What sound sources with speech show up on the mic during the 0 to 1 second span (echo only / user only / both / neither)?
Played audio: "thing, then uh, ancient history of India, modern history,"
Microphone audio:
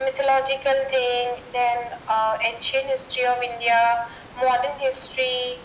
echo only